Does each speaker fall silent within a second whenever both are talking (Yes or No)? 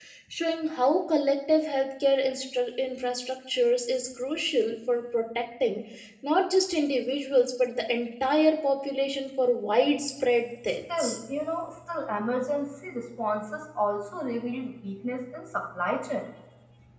Yes